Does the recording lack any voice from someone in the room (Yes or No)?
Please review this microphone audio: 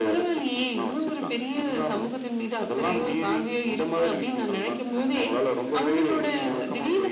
No